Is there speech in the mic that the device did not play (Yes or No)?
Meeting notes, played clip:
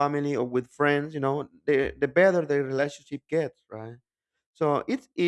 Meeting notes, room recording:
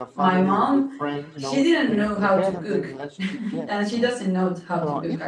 Yes